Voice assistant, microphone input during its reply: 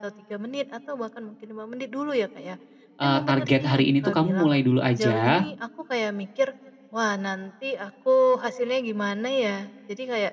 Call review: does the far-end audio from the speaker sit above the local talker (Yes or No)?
No